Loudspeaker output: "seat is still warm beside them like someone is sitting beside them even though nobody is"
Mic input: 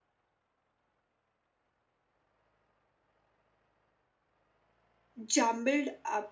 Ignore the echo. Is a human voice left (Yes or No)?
Yes